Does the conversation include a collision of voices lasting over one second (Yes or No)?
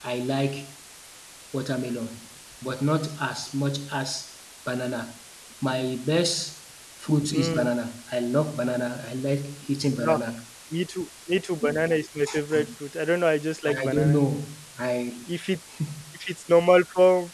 No